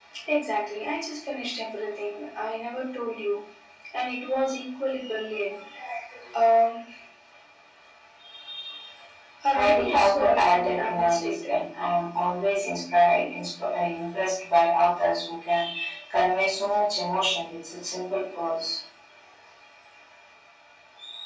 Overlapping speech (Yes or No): Yes